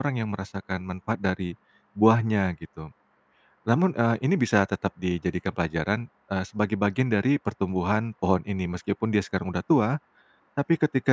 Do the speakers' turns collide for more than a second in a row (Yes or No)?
No